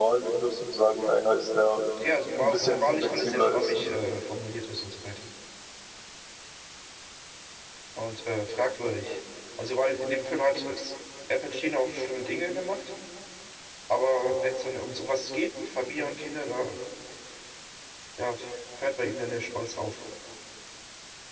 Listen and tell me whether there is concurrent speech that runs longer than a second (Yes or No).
Yes